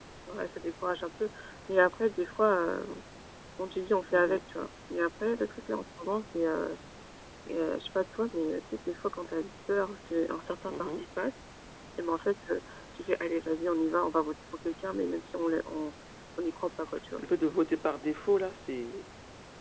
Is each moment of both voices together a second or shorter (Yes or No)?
Yes